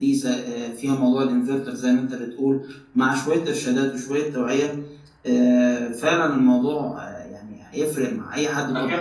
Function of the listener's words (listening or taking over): taking over